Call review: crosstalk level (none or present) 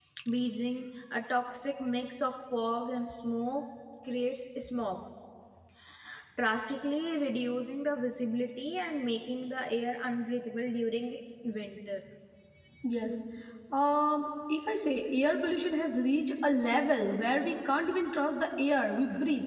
none